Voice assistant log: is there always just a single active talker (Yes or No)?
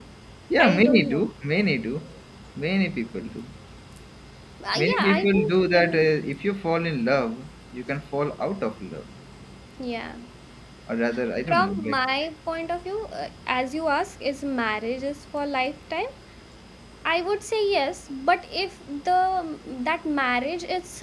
No